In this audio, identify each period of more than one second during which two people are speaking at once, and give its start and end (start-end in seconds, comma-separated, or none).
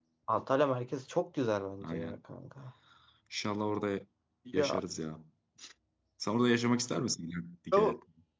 none